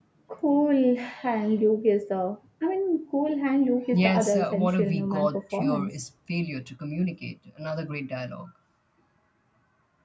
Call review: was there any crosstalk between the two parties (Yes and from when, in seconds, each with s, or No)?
Yes, from 3.9 s